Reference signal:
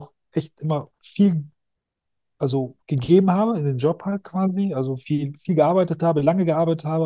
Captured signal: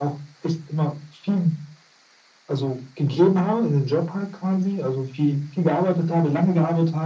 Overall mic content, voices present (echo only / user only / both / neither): echo only